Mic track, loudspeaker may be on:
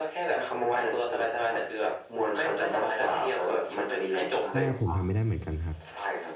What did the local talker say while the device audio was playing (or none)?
ใช่ครับผมทำไม่ได้เหมือนกันครับ